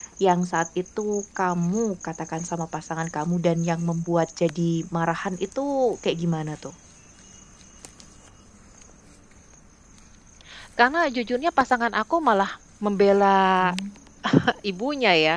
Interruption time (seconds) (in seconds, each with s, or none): none